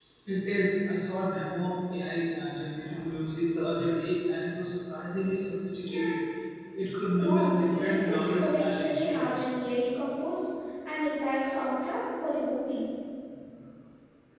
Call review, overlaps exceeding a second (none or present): present